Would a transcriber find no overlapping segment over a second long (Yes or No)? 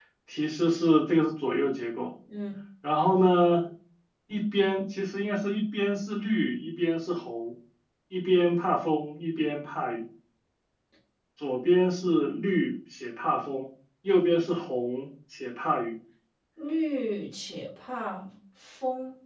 Yes